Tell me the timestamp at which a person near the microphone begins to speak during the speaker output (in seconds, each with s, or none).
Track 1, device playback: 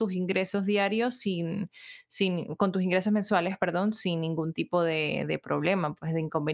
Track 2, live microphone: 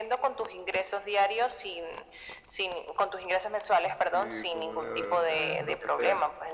3.8 s